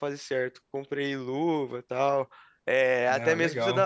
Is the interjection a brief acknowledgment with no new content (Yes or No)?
Yes